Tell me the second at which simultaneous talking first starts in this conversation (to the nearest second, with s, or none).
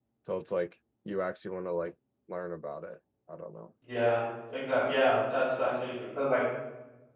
none